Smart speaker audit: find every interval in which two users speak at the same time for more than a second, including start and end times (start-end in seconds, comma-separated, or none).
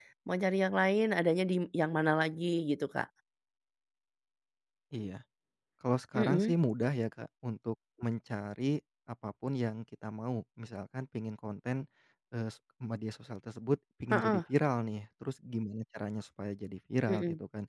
none